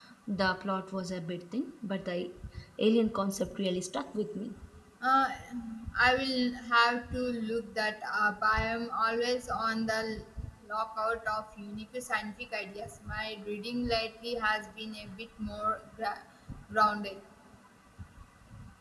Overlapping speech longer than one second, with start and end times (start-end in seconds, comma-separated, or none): none